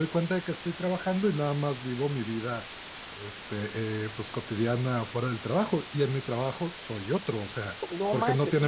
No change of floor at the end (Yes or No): No